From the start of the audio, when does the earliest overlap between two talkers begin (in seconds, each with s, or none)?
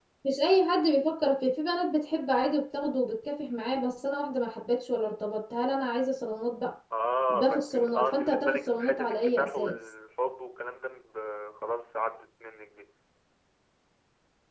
7.3 s